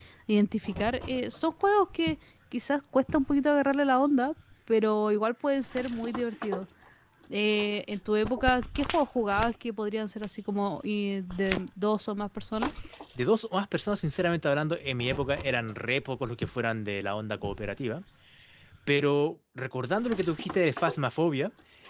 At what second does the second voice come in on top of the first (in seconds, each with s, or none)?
none